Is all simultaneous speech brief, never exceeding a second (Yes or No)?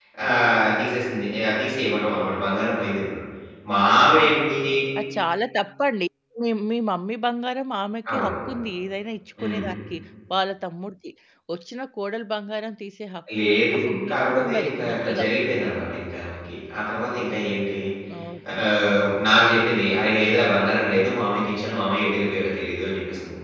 No